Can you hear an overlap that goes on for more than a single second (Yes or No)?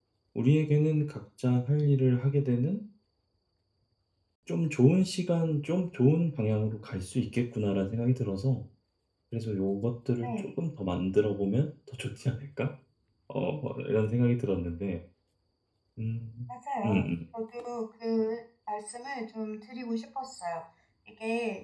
No